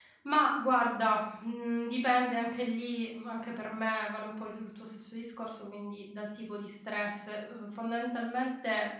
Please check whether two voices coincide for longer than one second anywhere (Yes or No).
No